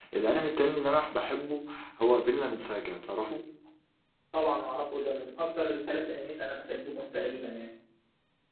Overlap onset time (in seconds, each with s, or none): none